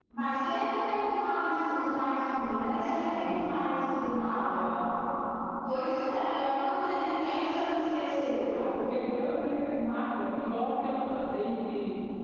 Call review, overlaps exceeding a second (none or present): none